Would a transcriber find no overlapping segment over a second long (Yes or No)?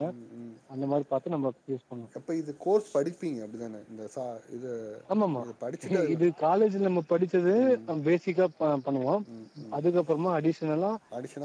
Yes